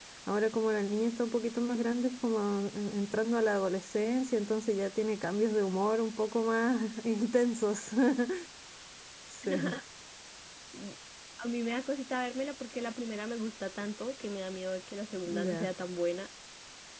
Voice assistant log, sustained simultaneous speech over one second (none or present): none